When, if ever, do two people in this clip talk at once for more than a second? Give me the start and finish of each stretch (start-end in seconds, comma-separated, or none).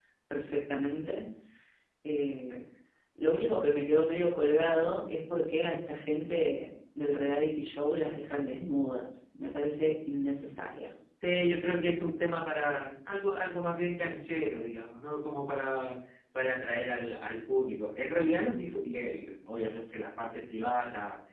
none